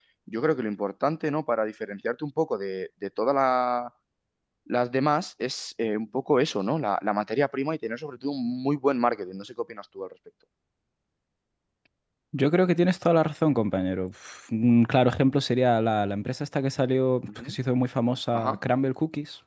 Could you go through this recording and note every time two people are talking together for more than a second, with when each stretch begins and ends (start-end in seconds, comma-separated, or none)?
none